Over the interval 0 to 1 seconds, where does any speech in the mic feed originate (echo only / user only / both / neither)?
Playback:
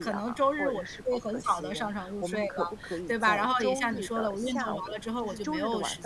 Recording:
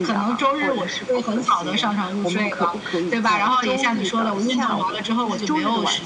echo only